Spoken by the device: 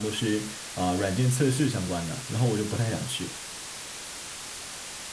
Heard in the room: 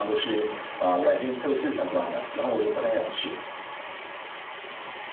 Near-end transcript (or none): none